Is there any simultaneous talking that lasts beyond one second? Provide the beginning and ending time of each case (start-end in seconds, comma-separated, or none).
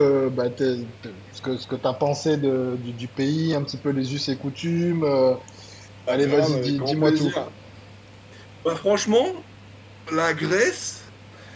6.1-7.3